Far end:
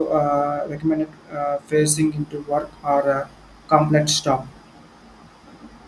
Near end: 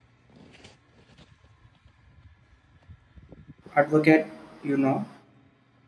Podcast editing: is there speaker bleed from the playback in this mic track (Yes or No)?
No